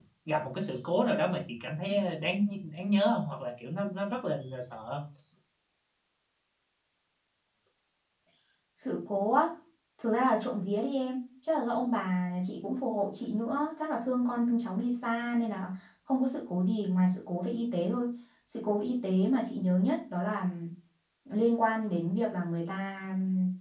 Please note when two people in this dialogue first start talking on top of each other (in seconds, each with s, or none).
none